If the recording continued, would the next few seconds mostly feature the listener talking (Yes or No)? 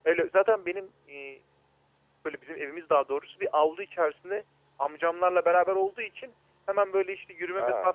No